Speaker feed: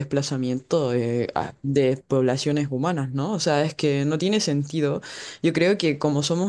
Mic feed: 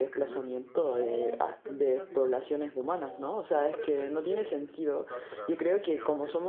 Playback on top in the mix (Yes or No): Yes